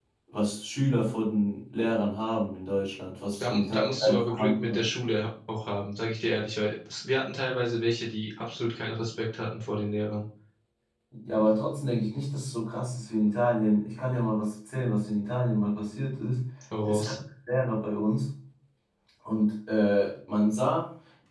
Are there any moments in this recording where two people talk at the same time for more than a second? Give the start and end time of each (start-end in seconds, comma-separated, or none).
3.4-4.8